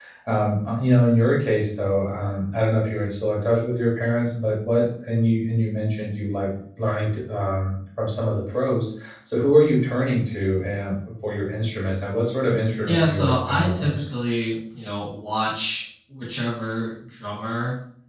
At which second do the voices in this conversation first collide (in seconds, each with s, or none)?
12.8 s